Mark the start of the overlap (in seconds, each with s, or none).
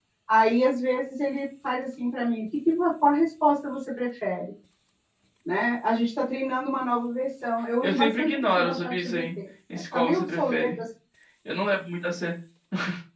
7.8 s